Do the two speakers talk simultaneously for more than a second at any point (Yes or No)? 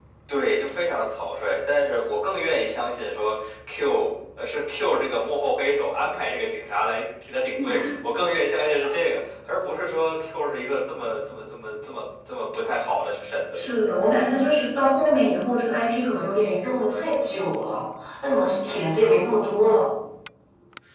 No